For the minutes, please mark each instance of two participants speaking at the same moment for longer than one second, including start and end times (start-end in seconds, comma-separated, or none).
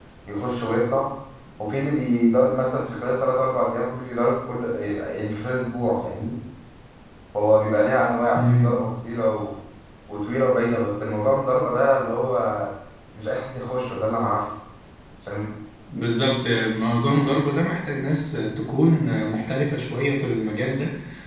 none